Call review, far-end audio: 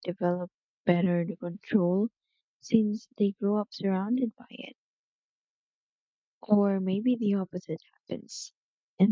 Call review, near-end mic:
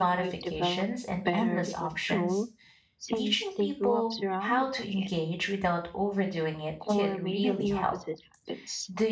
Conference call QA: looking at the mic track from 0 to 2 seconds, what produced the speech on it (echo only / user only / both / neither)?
both